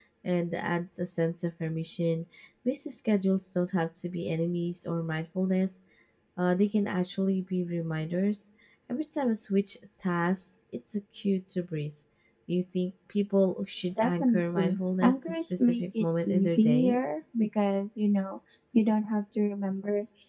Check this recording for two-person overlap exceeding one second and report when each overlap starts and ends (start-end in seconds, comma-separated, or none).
14.0-17.0